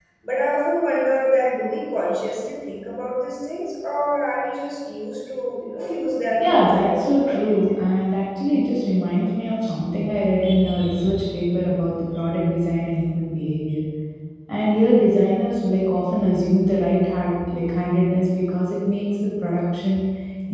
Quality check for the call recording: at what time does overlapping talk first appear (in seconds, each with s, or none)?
6.4 s